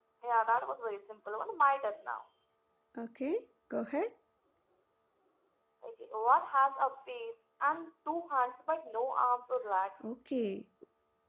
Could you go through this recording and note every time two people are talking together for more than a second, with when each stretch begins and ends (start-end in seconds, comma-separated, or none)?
none